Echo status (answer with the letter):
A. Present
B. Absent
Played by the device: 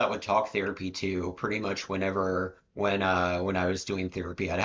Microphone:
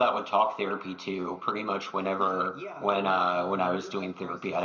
A